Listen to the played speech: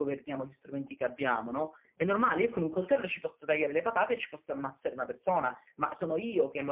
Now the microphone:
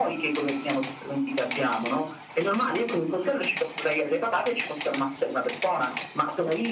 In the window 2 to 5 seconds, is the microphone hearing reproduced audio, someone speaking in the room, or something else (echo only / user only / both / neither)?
echo only